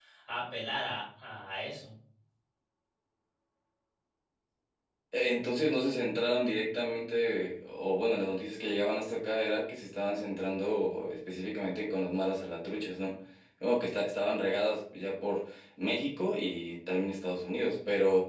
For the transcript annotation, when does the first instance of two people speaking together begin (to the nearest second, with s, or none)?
none